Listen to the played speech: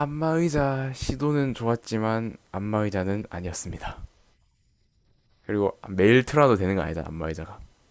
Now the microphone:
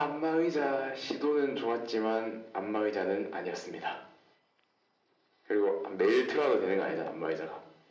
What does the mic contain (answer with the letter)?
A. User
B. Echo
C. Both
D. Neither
B